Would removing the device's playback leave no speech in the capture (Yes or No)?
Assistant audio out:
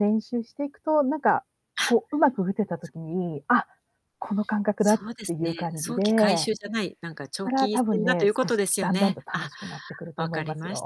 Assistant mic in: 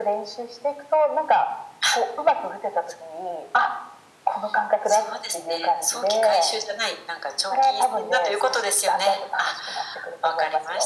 Yes